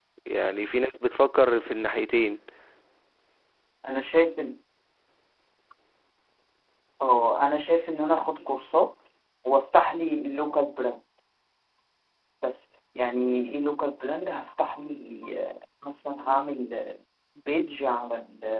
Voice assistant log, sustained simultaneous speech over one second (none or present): none